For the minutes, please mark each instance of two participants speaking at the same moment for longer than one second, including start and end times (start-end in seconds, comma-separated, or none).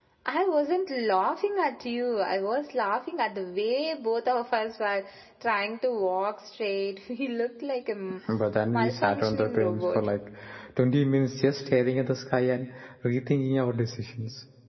8.7-10.1